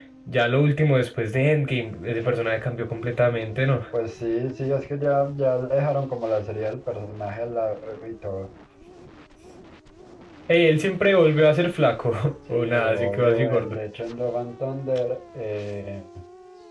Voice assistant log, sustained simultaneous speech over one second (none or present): present